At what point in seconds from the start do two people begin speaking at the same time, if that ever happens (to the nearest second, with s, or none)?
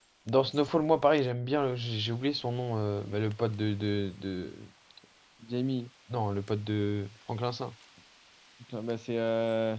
none